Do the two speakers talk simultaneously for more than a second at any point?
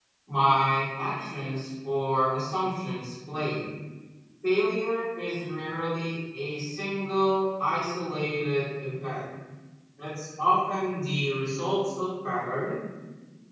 No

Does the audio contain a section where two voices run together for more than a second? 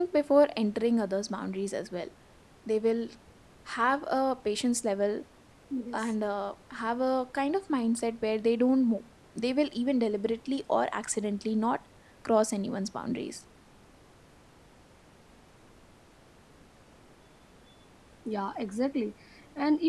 No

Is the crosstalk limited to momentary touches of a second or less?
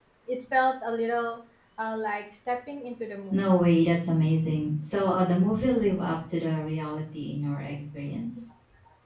Yes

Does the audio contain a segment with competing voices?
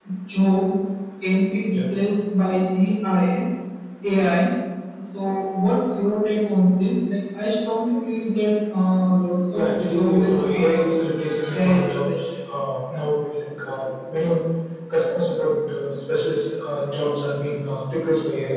Yes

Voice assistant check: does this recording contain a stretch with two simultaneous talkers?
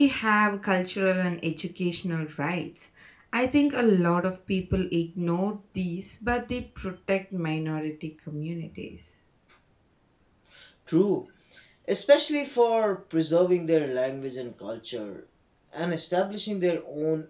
No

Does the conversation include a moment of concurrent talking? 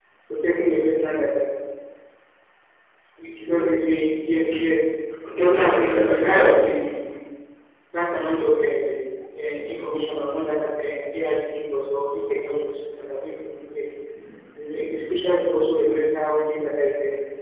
Yes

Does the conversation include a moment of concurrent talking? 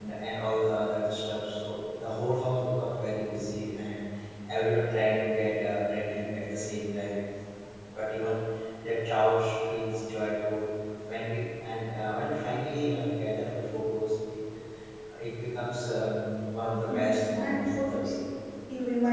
Yes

